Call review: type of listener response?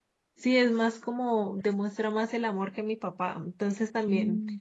listening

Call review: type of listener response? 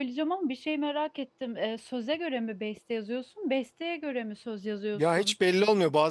taking over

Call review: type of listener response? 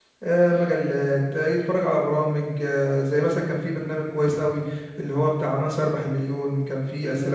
taking over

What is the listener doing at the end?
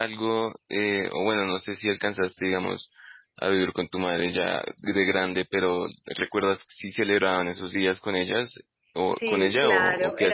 taking over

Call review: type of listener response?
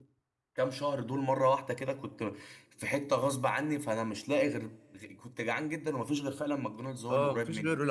taking over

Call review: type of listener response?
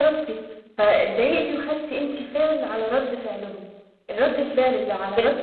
listening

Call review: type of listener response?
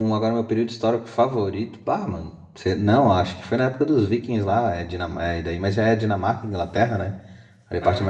listening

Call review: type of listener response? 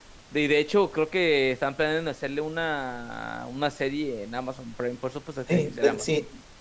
taking over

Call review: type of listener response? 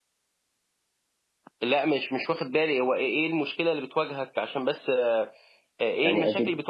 taking over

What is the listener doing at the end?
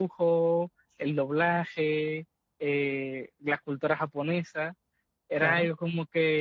listening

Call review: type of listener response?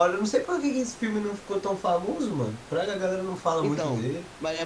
taking over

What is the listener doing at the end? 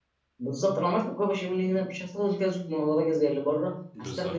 listening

